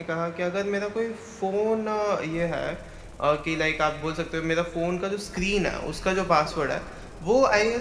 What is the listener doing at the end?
listening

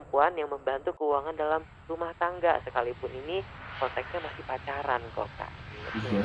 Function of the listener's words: taking over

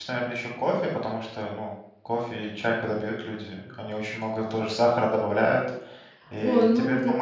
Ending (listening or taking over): taking over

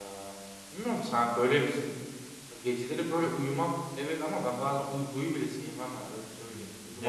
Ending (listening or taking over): taking over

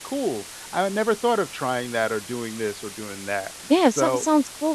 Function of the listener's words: taking over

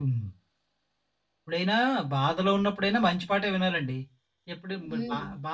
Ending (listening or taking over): listening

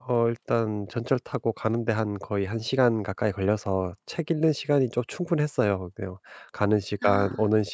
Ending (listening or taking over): listening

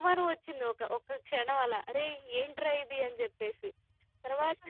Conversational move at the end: taking over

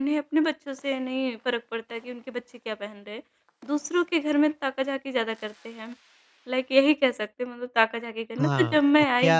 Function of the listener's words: taking over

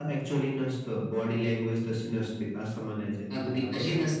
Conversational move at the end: taking over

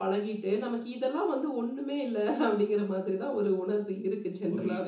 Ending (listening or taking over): taking over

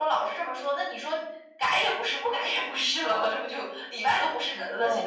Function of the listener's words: taking over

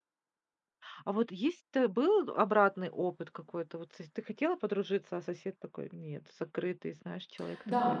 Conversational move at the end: taking over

